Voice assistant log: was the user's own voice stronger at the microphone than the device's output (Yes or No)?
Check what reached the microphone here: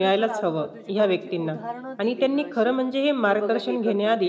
No